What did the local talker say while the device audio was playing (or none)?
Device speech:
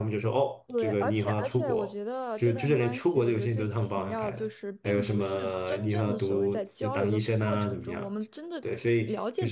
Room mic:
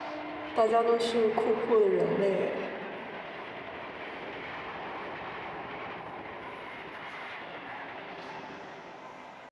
大家都是酷酷的人类。